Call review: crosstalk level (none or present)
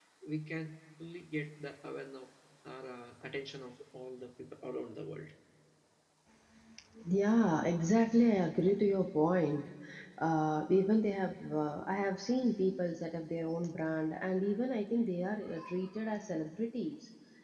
none